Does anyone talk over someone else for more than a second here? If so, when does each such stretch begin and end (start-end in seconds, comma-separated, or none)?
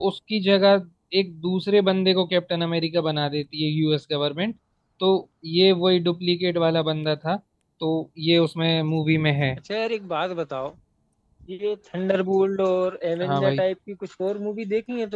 none